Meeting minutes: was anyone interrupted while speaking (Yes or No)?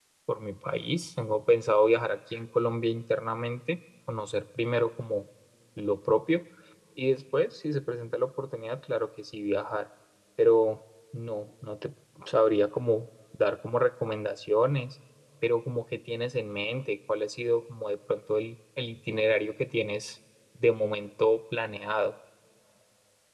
No